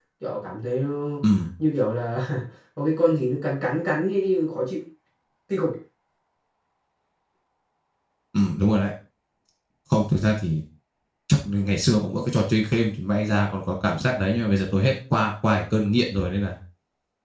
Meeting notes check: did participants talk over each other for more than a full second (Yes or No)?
No